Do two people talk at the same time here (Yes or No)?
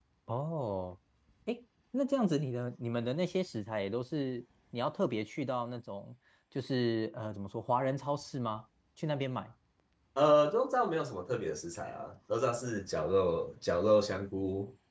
No